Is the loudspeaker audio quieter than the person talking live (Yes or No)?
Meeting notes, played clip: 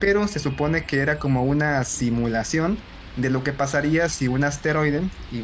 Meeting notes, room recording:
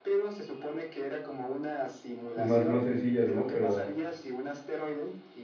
Yes